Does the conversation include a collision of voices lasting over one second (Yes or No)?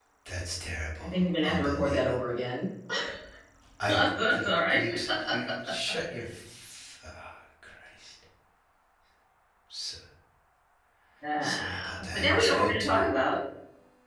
Yes